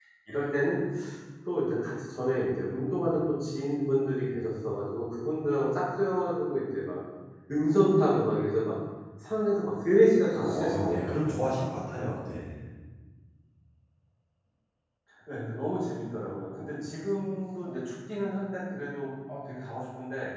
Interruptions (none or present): present